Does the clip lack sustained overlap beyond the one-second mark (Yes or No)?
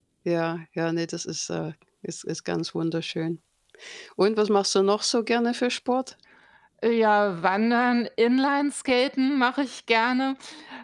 Yes